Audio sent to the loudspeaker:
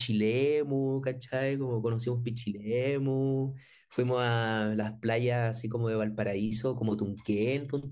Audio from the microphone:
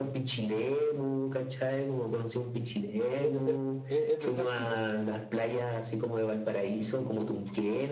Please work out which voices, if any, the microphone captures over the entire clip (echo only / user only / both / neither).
both